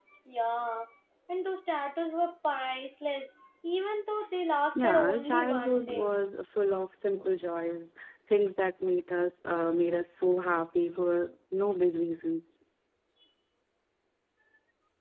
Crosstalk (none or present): present